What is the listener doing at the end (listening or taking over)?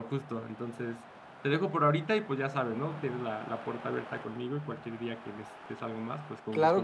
taking over